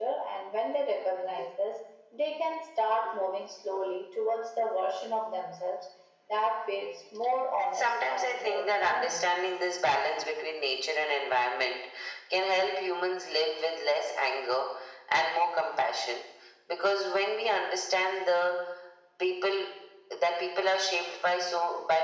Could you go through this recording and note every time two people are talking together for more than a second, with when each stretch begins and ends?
7.6-9.3

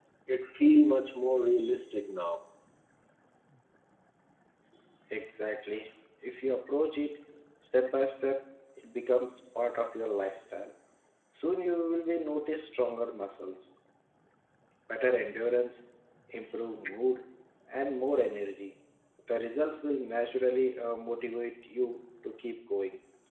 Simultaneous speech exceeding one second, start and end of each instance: none

